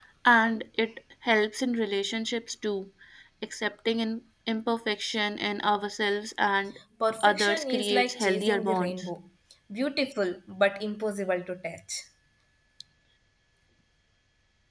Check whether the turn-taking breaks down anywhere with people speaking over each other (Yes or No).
Yes